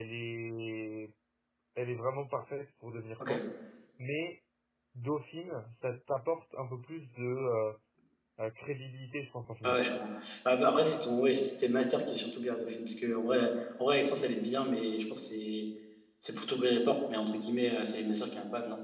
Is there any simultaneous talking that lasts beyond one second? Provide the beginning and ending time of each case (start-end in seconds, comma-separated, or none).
none